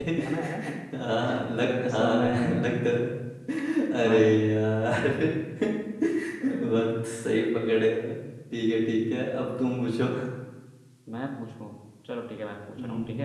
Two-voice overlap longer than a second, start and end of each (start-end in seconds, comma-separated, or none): 1.2-2.6